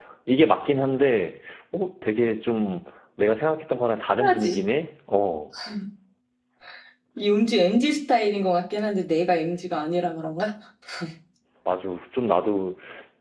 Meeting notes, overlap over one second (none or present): none